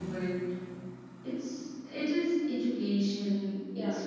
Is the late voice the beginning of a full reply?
No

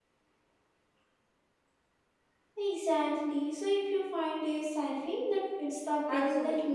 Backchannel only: No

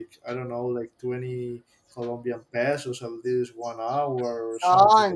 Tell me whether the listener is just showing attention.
No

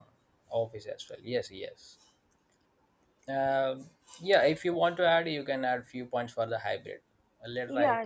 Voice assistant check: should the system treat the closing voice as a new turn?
Yes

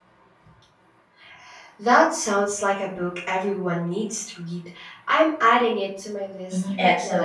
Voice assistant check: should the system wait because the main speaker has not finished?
No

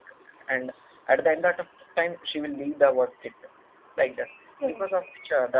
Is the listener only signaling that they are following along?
Yes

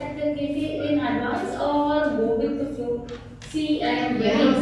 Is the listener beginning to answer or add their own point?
Yes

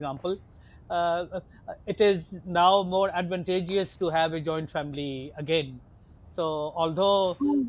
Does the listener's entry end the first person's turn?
No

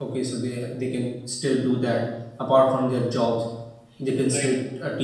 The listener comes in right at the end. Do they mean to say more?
No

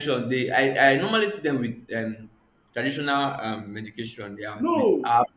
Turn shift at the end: Yes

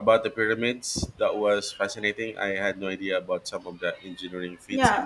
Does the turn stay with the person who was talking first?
No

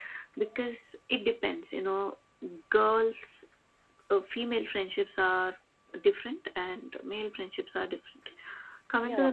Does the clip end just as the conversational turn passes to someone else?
No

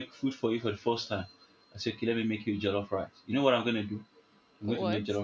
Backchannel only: Yes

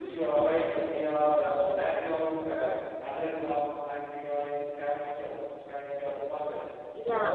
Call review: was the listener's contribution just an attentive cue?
Yes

